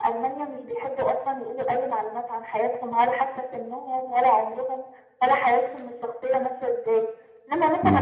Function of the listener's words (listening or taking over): listening